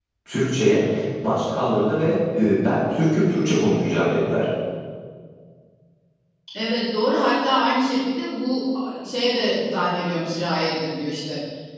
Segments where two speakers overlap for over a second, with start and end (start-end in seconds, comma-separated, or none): none